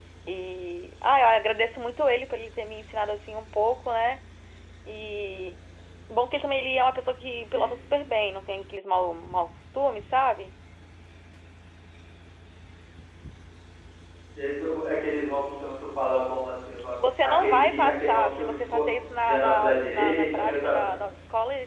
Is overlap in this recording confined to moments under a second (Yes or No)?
No